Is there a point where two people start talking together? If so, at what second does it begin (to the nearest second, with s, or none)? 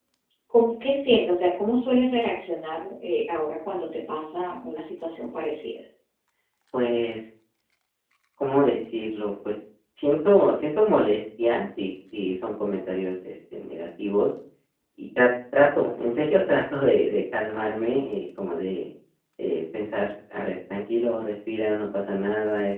none